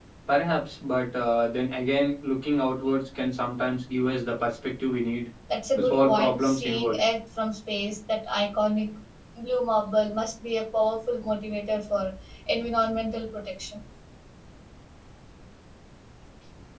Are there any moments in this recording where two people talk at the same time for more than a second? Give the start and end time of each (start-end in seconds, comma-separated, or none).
5.8-7.0